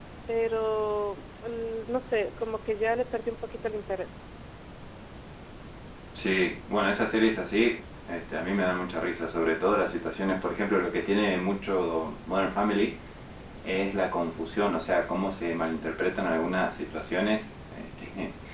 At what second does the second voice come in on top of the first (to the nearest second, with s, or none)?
none